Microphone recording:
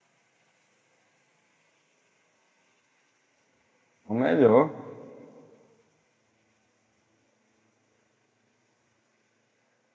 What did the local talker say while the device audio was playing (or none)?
É O melhor.